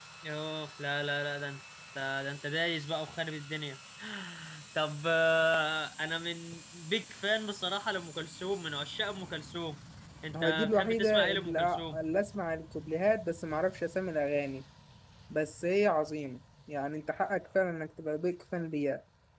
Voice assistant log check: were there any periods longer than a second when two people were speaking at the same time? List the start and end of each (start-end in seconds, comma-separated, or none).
10.4-12.0